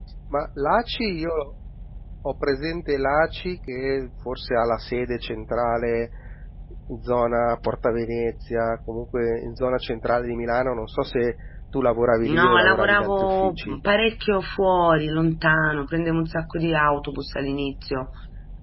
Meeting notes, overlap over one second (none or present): present